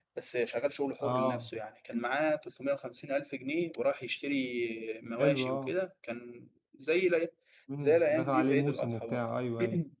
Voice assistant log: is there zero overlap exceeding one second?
No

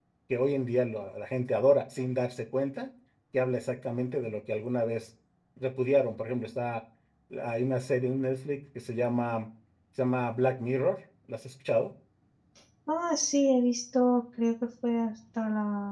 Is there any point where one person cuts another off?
No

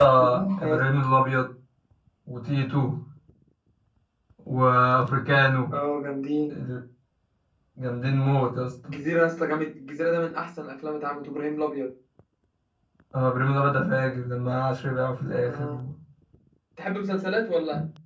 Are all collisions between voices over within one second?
Yes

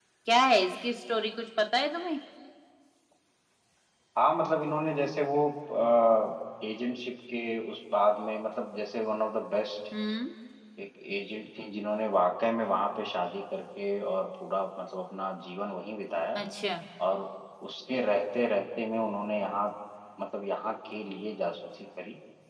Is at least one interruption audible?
No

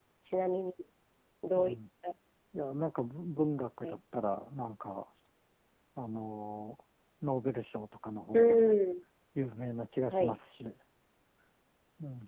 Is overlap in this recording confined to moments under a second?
Yes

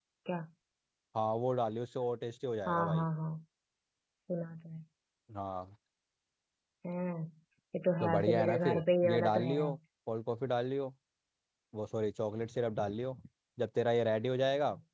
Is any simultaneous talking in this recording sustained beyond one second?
Yes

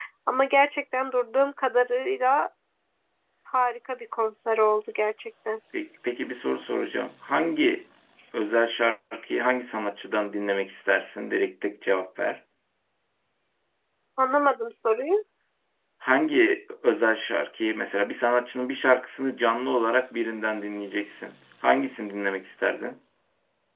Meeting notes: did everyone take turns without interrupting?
Yes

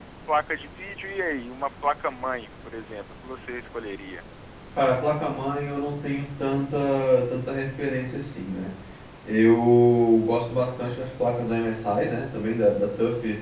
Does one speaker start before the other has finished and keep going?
No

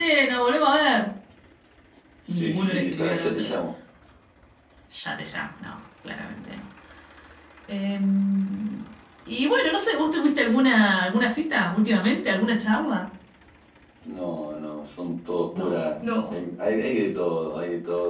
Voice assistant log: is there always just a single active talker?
No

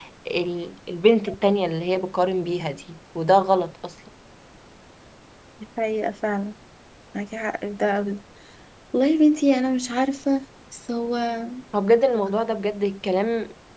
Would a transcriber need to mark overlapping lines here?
No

